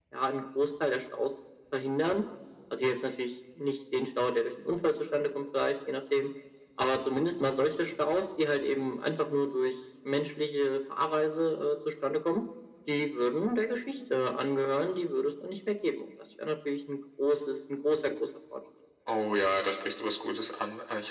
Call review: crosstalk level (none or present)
none